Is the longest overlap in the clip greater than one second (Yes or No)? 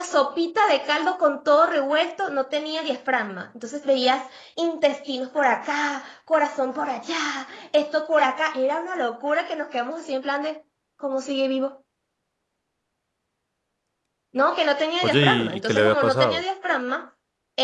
Yes